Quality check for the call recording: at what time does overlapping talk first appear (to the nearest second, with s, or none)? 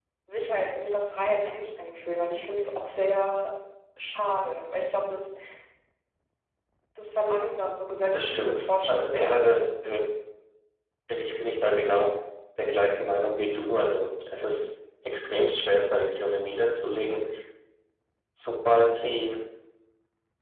8 s